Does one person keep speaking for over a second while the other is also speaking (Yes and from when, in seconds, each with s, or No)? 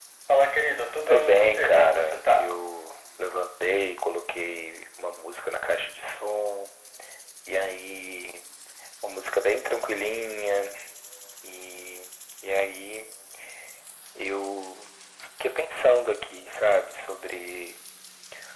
Yes, from 1.1 s